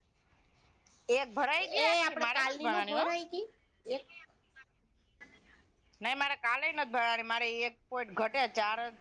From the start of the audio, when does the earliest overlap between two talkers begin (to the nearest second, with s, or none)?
2 s